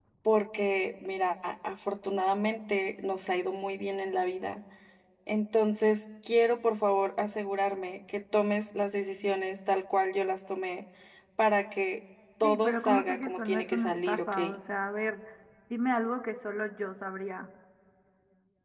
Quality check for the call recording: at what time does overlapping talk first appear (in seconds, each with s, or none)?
12.4 s